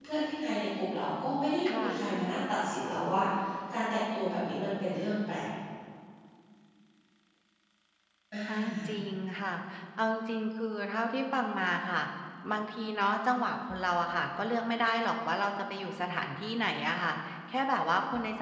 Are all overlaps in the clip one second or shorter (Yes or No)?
Yes